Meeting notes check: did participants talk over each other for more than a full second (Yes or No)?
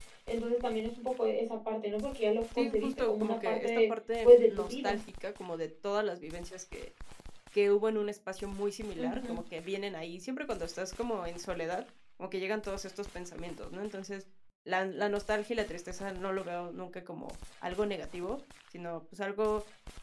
Yes